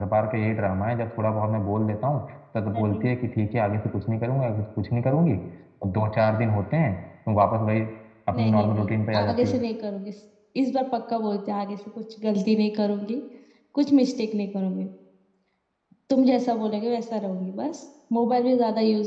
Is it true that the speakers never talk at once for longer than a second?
No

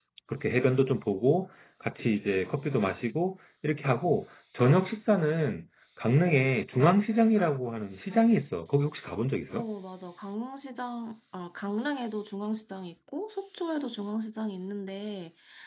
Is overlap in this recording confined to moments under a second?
Yes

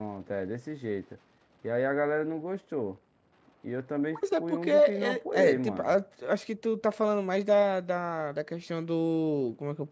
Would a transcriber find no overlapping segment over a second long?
No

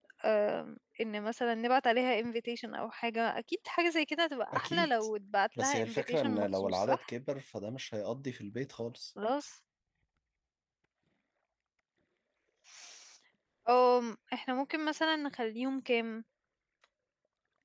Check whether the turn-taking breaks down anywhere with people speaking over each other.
Yes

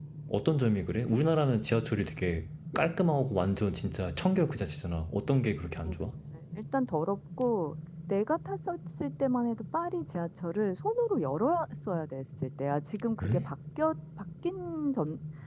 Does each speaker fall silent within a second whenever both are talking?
Yes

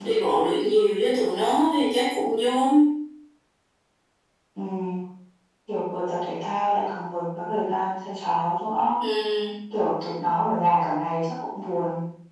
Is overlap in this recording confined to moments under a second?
Yes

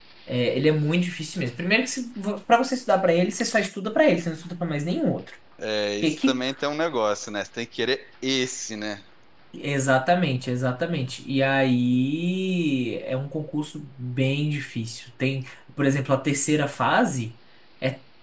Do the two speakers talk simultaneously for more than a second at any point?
No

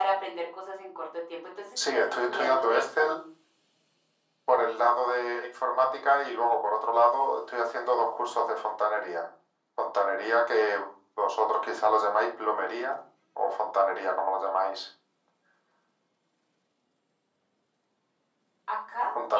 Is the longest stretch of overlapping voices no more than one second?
No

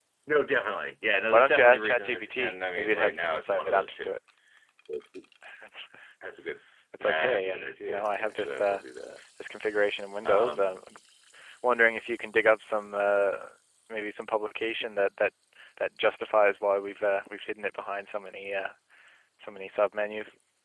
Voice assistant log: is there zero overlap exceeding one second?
No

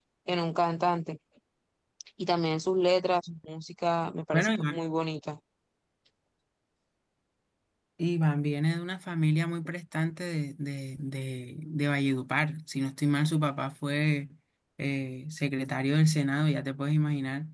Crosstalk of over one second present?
No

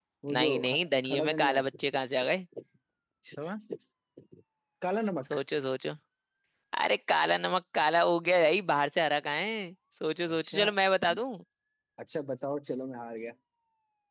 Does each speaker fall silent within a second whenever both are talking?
No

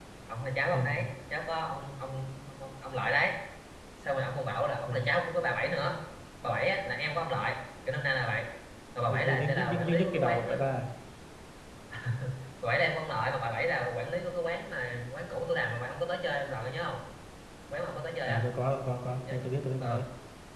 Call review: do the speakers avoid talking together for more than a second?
No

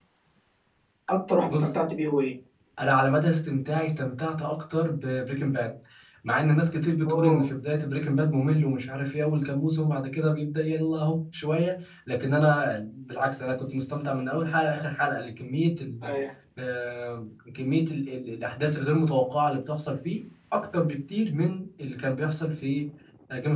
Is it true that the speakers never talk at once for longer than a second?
Yes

